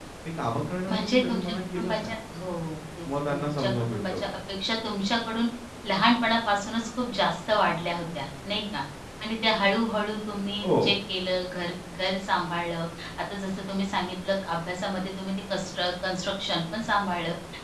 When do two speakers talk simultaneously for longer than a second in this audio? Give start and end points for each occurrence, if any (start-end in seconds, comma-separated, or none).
0.9-2.2, 3.1-4.4